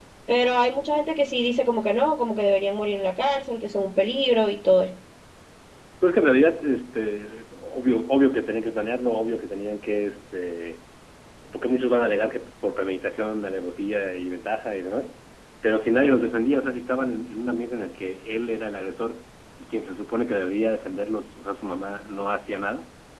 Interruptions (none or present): none